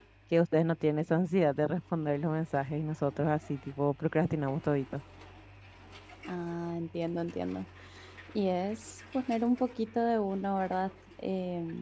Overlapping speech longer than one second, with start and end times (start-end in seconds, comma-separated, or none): none